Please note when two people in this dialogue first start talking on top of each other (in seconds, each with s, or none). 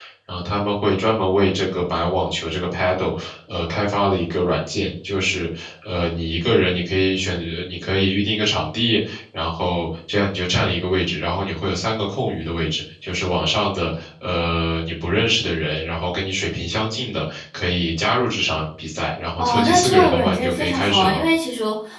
19.4 s